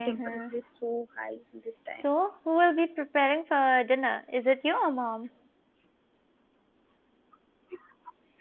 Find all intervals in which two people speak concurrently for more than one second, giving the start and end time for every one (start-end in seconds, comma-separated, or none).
none